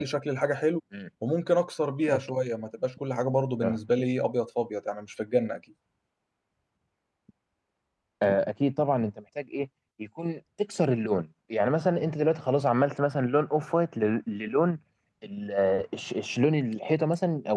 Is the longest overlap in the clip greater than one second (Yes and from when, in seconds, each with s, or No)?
No